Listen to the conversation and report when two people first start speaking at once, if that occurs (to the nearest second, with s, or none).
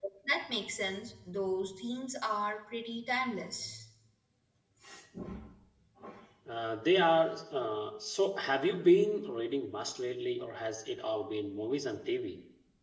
none